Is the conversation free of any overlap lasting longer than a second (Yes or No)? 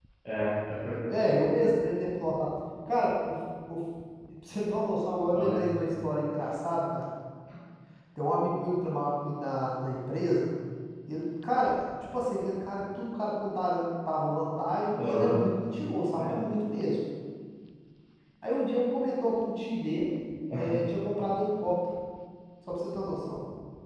Yes